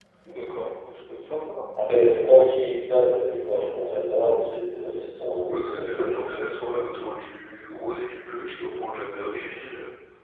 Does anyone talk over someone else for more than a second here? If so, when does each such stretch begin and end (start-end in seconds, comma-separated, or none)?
none